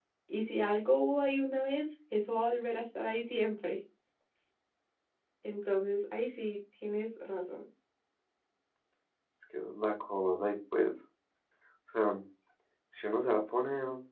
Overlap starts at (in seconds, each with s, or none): none